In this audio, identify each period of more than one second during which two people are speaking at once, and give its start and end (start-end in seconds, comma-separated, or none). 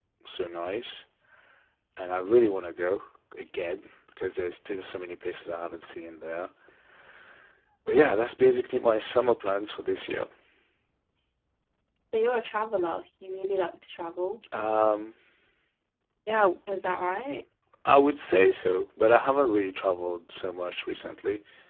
none